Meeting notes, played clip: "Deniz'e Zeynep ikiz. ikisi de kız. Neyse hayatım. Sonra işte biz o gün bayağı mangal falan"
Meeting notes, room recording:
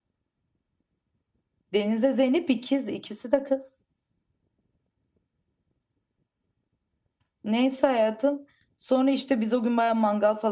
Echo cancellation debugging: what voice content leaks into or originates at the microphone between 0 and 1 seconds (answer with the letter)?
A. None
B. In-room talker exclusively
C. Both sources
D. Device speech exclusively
A